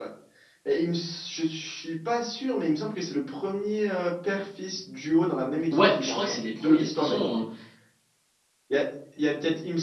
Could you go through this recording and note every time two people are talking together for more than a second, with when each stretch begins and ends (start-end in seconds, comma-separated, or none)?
5.7-7.4